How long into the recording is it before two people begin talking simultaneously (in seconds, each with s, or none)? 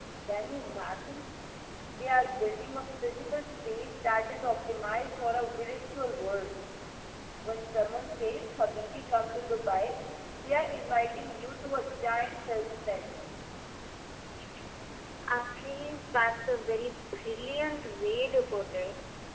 none